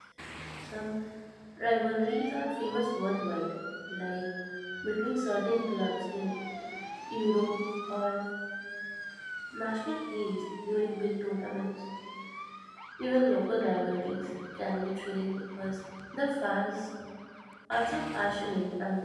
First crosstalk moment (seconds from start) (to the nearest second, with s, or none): none